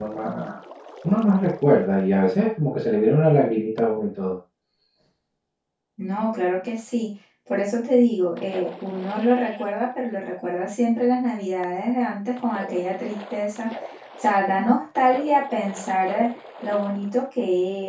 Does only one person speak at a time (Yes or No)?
Yes